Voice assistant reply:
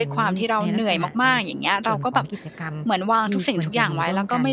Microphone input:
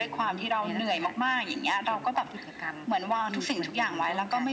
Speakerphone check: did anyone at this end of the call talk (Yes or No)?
No